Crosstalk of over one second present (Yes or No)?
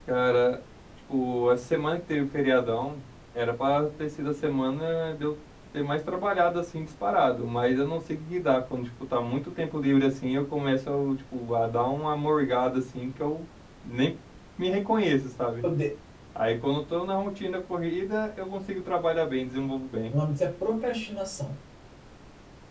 No